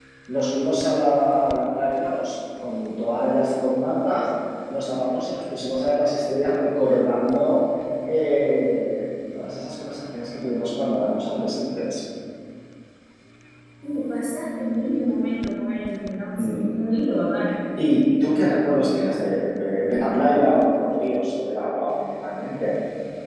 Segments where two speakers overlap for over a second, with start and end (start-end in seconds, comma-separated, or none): none